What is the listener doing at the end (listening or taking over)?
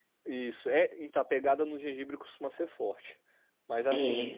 listening